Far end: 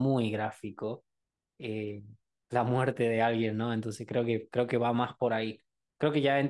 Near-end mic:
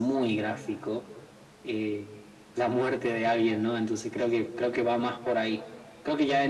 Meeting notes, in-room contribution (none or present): none